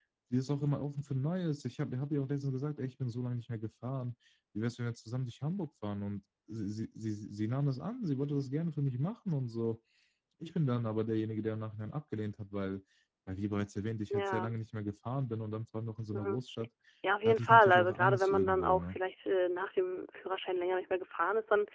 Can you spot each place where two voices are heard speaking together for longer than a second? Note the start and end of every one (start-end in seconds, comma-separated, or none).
17.2-19.0